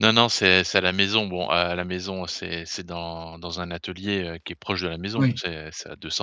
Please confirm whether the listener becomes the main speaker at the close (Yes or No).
No